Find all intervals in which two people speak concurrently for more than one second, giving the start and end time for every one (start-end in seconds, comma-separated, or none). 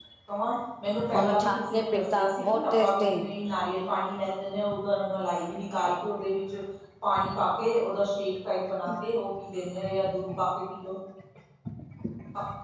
1.1-3.2